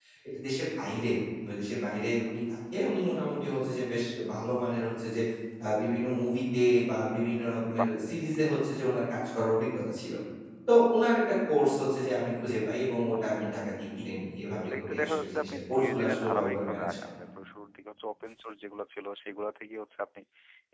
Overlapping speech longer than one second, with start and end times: 14.7-16.9

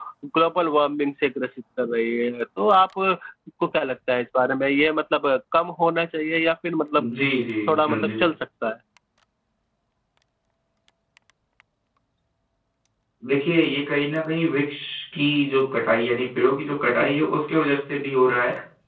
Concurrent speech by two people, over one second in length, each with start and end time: none

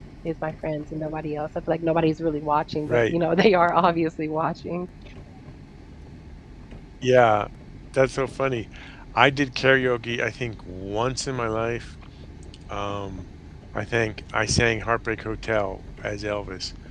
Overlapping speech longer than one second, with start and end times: none

